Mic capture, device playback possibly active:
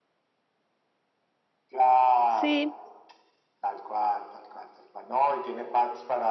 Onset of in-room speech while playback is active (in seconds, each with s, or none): 2.2 s